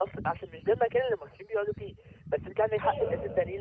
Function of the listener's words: listening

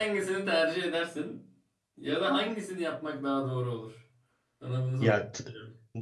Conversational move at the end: taking over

